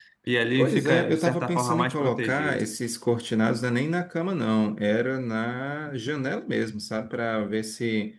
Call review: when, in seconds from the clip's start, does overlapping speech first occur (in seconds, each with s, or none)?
0.6 s